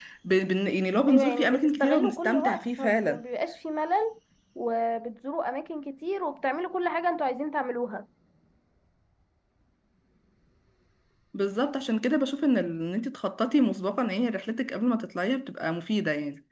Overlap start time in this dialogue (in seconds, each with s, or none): 1.1 s